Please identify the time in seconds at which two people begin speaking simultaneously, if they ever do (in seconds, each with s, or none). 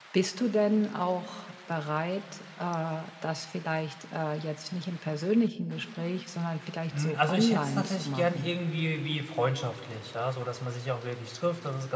6.9 s